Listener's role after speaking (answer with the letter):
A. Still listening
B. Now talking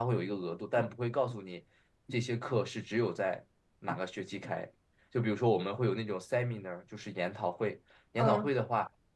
A